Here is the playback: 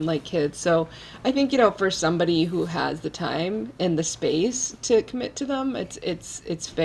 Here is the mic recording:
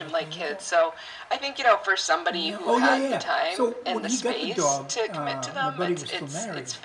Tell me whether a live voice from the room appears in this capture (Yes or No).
Yes